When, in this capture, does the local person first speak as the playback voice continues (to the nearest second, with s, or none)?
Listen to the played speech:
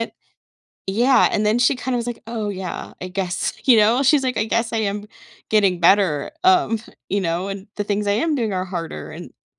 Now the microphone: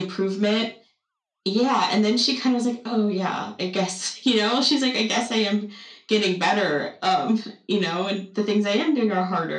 none